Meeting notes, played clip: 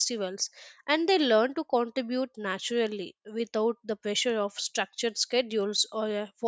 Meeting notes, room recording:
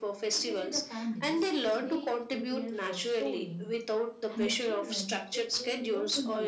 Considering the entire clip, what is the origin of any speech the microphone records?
both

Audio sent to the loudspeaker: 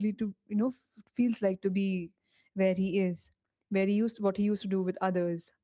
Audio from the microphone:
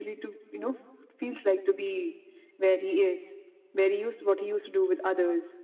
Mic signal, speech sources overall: echo only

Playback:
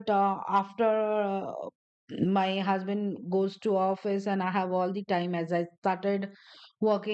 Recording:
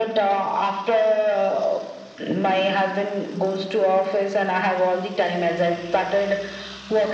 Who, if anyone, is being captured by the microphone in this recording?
echo only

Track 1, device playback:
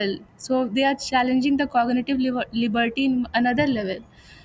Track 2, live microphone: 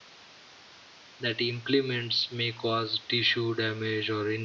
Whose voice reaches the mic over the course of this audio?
user only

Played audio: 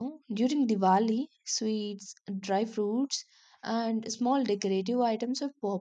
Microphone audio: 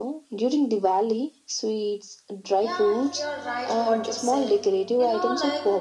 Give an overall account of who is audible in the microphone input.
both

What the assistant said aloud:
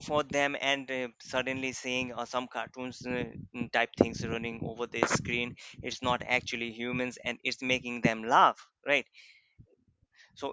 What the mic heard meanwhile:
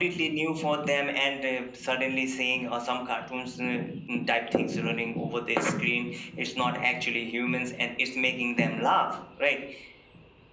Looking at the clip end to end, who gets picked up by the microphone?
echo only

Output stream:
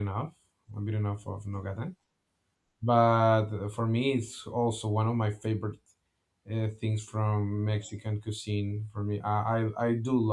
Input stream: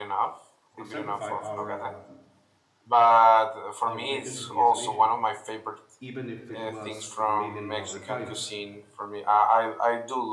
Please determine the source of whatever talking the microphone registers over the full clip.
both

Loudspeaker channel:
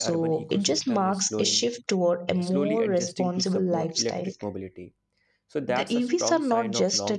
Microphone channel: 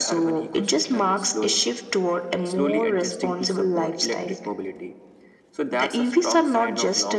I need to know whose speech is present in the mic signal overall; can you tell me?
echo only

